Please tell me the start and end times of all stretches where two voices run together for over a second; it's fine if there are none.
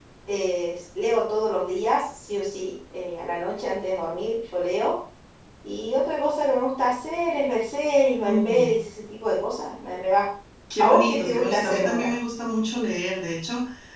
10.8-12.1

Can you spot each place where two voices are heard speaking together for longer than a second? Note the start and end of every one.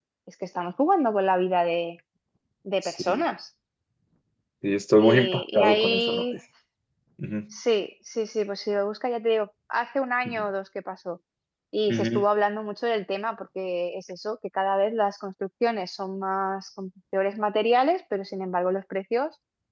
5.0-6.2

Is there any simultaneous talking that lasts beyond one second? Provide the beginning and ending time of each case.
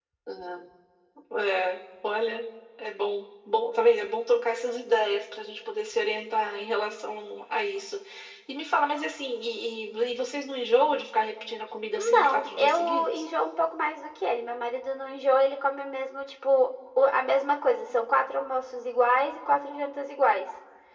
11.9-13.2

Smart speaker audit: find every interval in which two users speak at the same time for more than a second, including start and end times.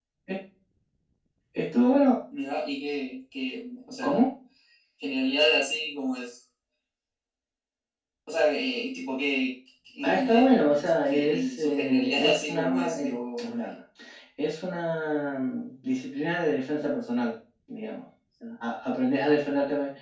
10.0-13.4

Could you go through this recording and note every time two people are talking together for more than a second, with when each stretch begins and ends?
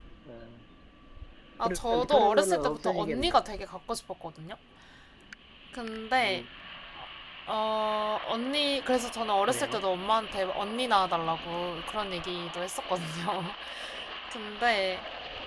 1.6-3.5

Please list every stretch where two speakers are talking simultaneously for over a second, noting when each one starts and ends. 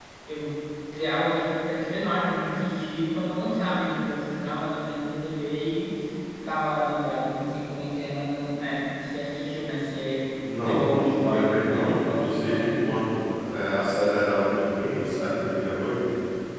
10.6-13.0

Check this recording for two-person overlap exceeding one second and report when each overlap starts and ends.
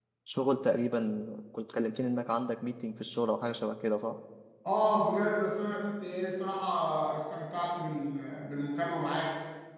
none

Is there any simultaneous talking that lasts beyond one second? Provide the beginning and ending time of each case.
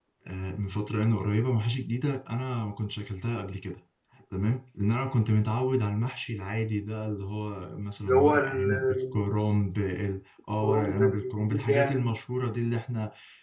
8.0-9.3, 10.6-12.2

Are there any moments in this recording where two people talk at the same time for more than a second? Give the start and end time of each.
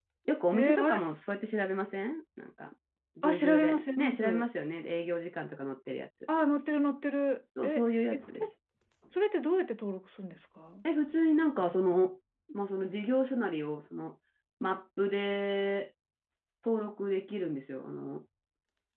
3.2-4.5

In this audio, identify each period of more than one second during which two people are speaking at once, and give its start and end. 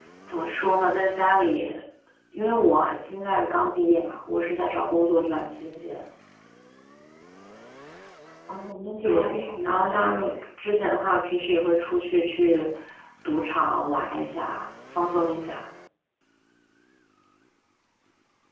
9.1-10.4

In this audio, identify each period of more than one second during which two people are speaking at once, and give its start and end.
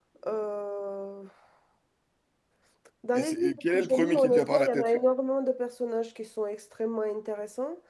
3.2-4.9

